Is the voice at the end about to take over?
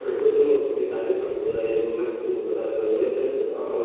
No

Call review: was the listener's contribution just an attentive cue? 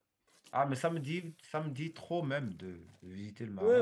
No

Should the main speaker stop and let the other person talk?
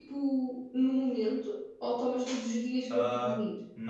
Yes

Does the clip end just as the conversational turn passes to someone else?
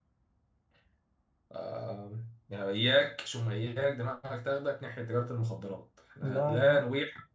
No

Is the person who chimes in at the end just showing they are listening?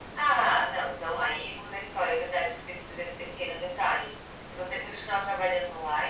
Yes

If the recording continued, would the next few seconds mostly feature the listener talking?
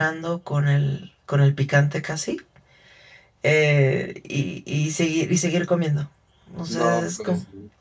Yes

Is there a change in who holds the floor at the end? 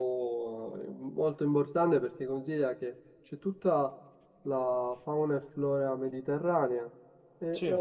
No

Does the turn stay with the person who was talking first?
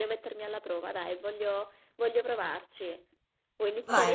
No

